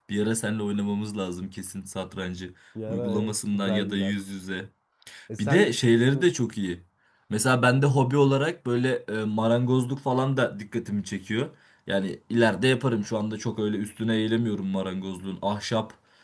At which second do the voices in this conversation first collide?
2.9 s

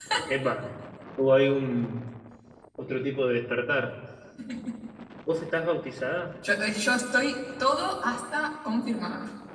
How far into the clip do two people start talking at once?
none

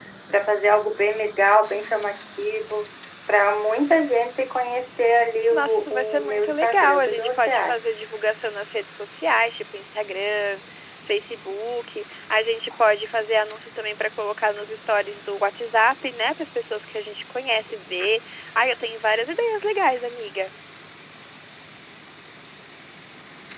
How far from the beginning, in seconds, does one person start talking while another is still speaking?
5.5 s

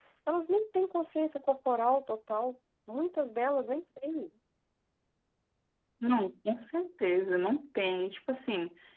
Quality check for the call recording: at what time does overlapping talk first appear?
none

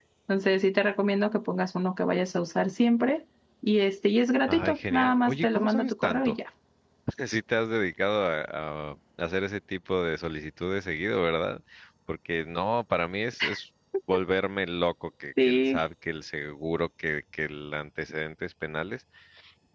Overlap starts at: 4.5 s

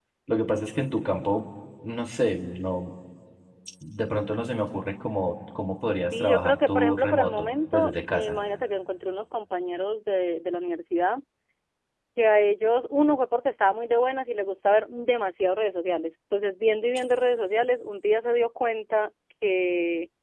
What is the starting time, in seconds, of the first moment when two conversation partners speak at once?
6.1 s

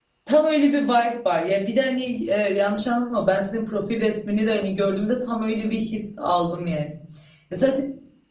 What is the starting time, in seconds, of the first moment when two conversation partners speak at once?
none

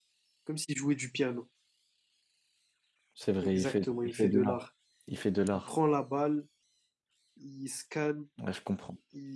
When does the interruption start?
3.4 s

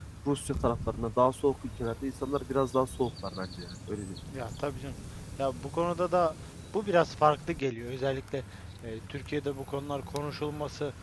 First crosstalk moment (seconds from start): none

